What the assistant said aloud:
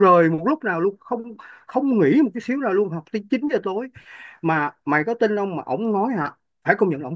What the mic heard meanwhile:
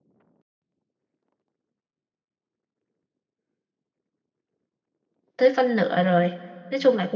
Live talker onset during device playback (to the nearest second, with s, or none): 5 s